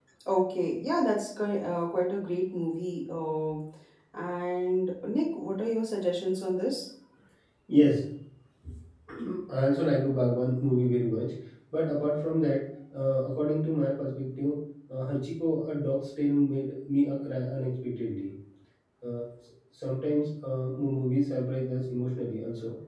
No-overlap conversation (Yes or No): Yes